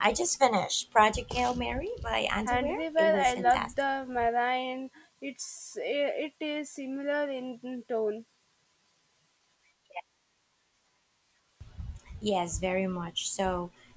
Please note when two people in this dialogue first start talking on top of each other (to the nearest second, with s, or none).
2 s